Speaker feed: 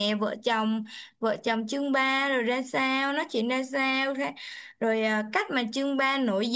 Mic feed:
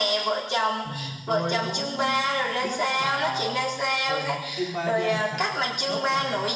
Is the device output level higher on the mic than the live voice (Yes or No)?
Yes